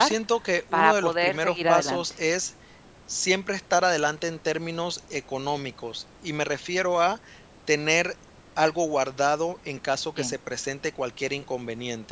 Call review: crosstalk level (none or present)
present